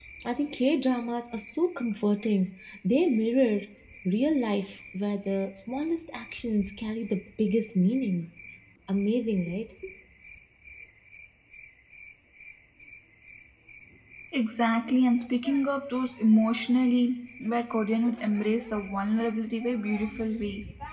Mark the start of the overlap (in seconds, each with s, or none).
none